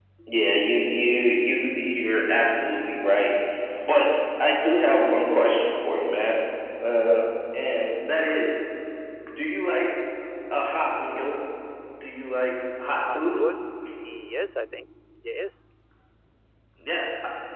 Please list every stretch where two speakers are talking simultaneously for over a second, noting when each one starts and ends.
none

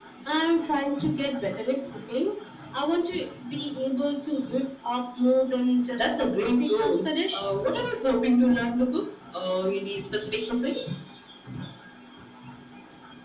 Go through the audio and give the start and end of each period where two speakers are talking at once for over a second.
6.0-7.4

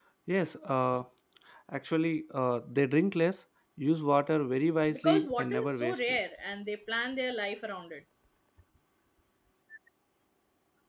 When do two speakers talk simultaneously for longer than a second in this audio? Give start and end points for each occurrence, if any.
4.9-6.2

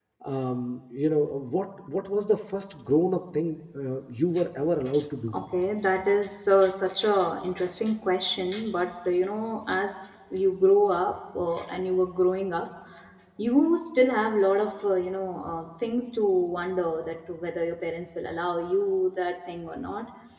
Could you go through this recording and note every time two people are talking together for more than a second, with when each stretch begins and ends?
none

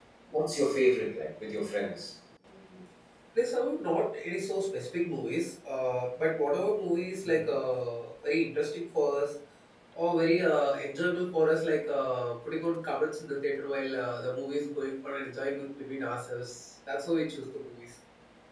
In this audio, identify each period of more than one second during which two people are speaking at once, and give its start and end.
none

